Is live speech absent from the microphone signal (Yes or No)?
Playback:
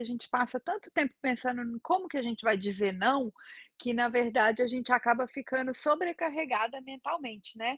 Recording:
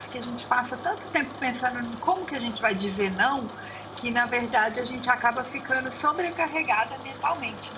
Yes